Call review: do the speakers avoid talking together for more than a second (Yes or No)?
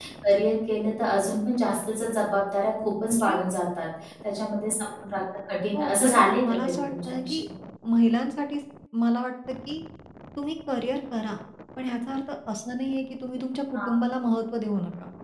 No